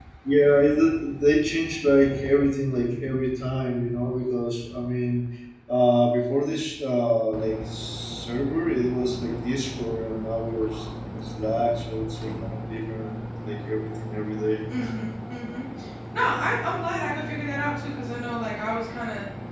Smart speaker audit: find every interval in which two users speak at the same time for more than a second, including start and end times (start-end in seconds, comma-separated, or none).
none